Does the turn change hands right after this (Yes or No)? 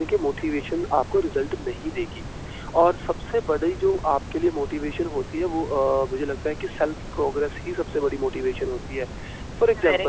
No